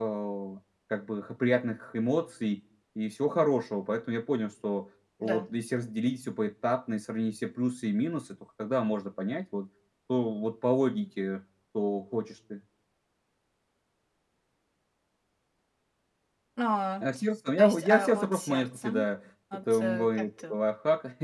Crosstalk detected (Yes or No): Yes